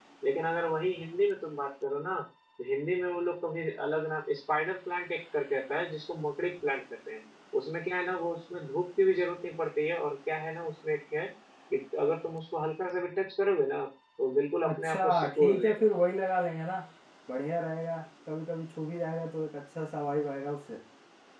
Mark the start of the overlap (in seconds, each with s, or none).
14.6 s